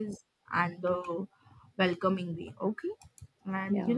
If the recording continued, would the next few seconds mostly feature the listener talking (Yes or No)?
No